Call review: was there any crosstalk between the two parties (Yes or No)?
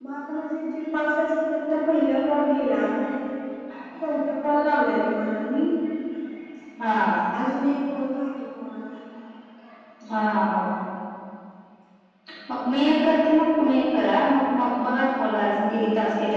No